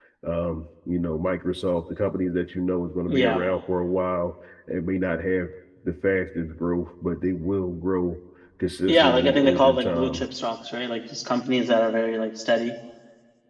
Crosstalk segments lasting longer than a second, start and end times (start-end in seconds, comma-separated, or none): 8.9-10.2